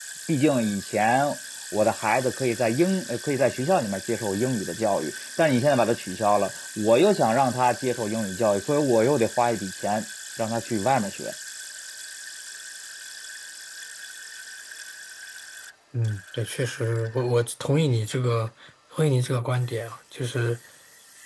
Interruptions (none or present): none